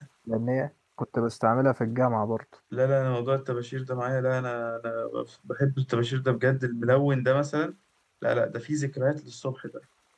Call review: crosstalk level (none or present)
none